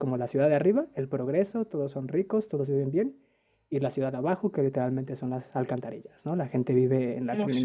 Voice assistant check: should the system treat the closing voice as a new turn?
No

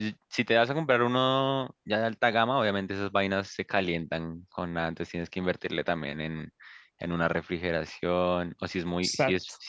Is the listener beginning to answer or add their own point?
No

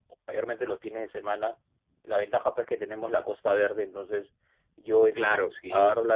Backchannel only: Yes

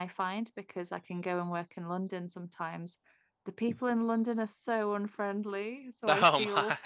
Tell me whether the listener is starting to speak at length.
No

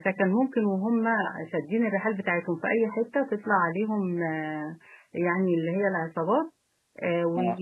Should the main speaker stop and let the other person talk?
No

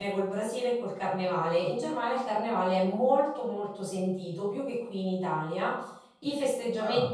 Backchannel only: Yes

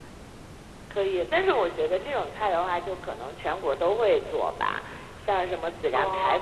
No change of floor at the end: Yes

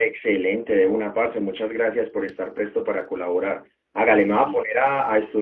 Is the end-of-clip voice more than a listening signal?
No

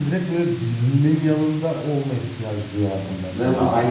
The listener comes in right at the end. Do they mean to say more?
Yes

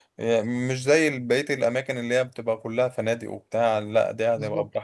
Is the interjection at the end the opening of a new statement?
Yes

